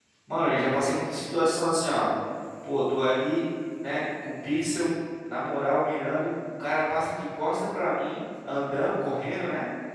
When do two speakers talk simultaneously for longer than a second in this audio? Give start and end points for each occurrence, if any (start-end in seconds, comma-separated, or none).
none